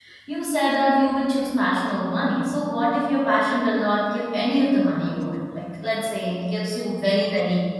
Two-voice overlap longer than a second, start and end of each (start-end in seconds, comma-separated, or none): none